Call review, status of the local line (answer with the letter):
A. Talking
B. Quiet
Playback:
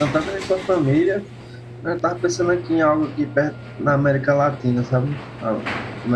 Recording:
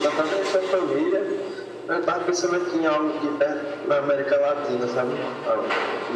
B